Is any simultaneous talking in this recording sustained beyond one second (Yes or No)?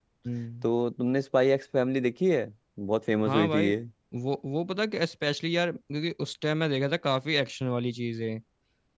No